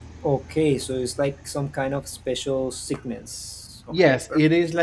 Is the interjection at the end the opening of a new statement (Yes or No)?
Yes